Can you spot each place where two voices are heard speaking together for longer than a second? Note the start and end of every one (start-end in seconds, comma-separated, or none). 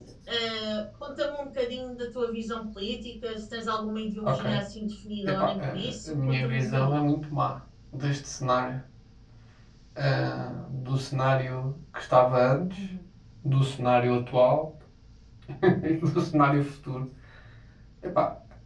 5.2-7.0